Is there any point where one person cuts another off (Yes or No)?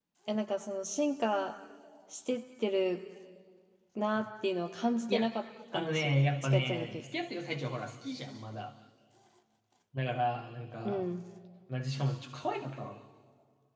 Yes